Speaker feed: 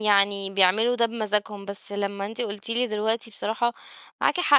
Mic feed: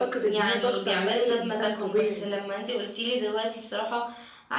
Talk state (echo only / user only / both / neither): both